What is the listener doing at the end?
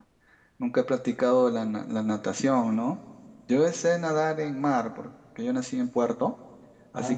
listening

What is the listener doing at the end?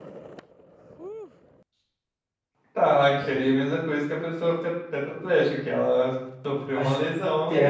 taking over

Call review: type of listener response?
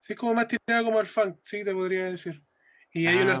listening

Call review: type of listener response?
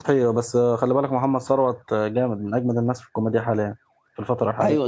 taking over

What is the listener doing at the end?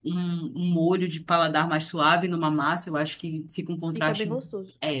taking over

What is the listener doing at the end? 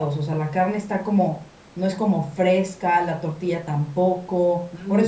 taking over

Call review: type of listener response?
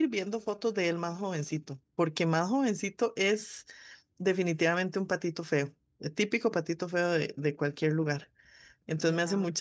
listening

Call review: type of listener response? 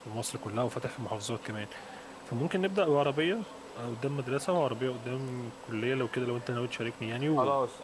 taking over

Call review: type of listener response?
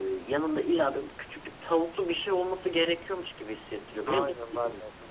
taking over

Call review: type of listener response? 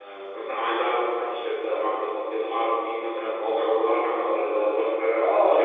taking over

